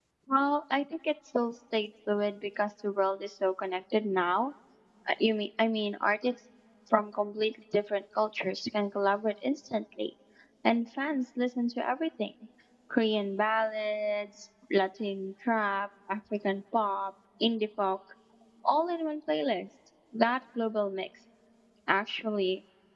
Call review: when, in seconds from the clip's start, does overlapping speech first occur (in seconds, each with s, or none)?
none